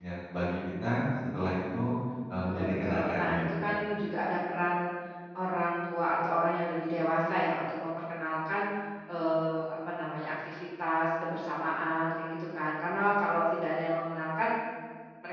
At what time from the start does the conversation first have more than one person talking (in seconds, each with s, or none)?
2.4 s